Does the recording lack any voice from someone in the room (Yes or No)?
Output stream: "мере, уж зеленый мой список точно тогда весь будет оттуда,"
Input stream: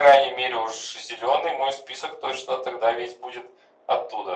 Yes